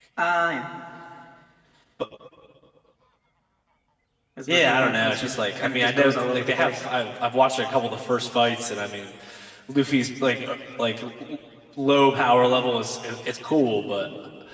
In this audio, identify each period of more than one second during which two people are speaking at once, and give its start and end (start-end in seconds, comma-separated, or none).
4.5-6.8